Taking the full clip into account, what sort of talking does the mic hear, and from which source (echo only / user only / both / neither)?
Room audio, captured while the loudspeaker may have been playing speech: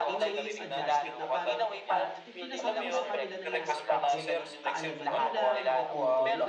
both